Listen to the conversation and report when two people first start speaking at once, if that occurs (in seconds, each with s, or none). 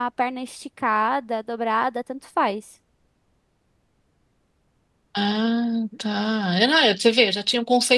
none